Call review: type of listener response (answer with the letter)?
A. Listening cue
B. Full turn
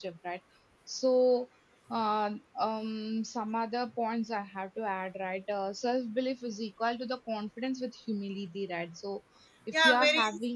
B